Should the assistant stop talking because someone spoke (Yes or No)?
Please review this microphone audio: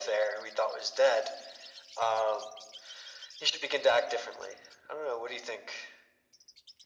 No